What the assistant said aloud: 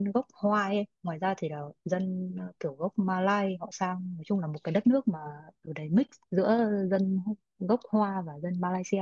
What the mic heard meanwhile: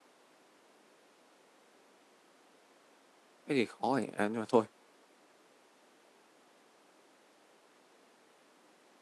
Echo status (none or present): none